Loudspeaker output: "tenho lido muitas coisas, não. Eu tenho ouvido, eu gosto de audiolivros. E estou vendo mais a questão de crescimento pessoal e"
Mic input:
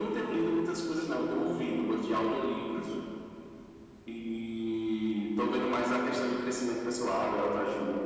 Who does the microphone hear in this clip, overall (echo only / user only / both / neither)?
echo only